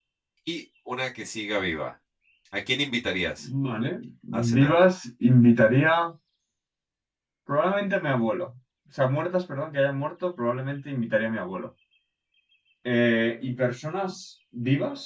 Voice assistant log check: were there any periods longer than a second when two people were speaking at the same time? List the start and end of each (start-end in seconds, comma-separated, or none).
none